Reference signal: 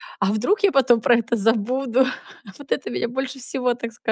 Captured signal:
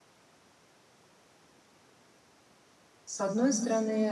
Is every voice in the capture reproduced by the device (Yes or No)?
No